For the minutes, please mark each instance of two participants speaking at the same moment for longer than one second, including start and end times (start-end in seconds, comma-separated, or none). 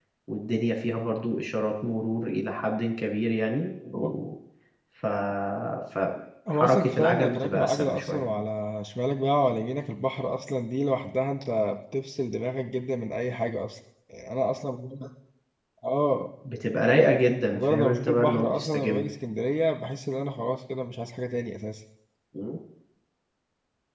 6.5-8.2, 17.5-19.0